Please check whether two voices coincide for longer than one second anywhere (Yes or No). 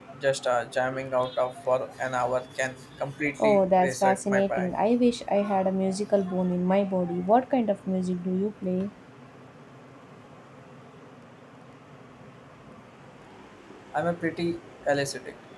Yes